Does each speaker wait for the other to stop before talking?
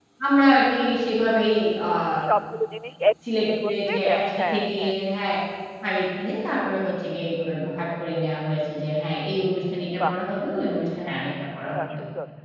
No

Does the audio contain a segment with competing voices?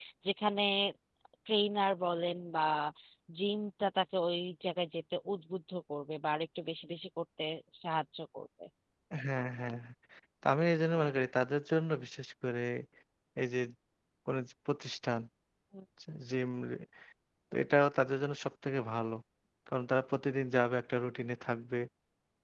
No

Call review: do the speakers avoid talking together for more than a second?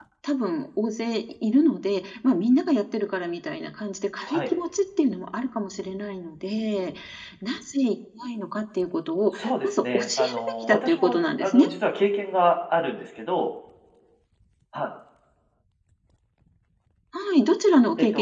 No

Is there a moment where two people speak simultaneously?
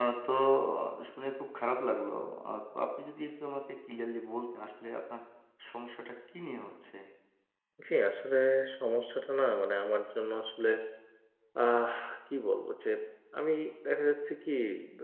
No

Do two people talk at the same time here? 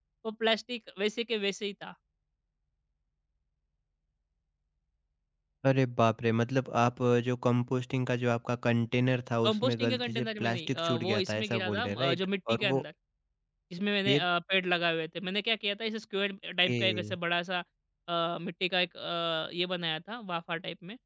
Yes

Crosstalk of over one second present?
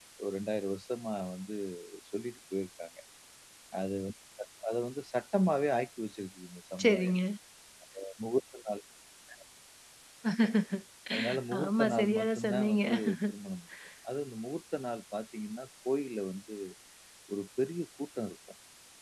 Yes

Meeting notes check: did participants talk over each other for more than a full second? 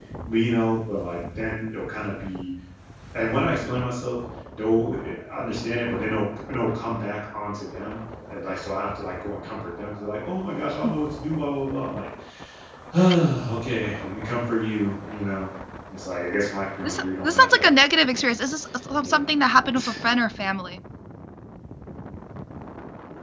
Yes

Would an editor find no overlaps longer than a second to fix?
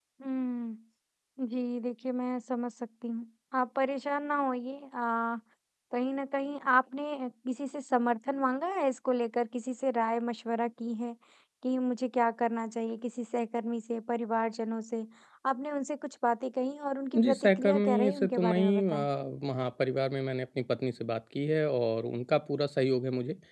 No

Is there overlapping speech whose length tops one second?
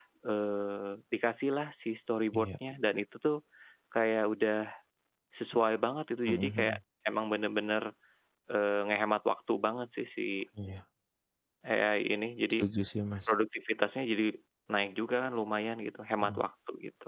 No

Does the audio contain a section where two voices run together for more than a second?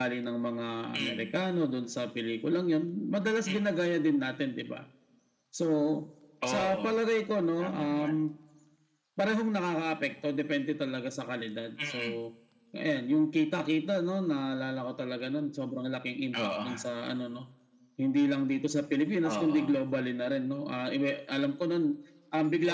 No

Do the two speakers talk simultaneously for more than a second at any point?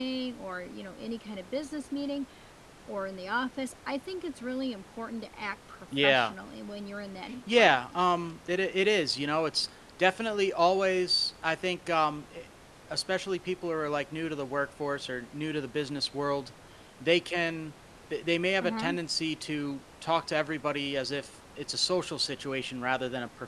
No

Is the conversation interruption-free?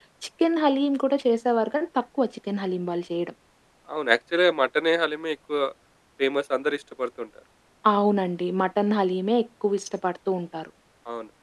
Yes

